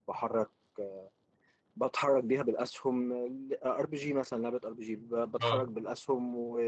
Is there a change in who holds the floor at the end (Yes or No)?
No